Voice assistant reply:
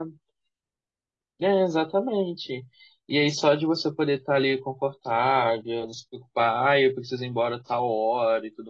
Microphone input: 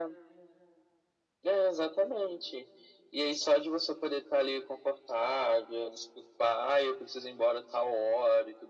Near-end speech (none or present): none